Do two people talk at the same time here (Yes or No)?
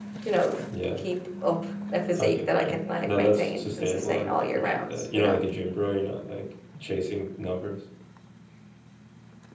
Yes